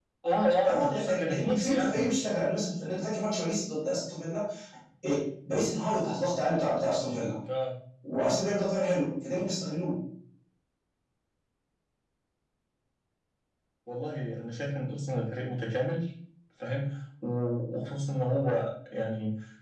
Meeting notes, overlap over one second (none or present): present